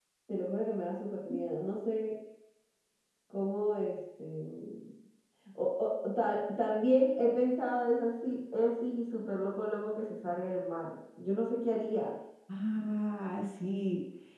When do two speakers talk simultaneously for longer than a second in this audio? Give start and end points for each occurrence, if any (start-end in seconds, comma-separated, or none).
none